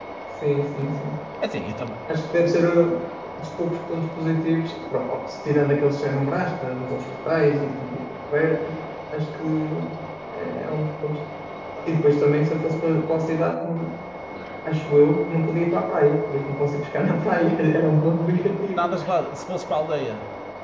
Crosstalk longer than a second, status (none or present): none